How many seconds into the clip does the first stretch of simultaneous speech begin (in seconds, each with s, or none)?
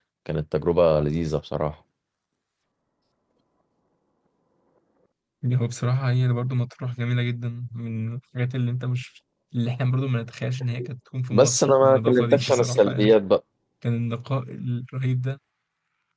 11.3 s